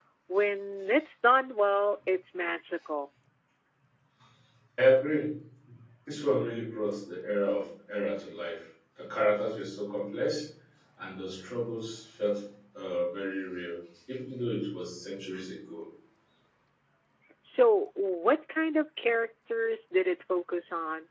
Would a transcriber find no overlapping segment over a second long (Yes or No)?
Yes